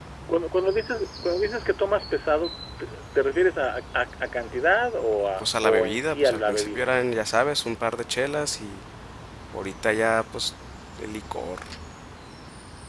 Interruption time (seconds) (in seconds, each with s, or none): 5.4 s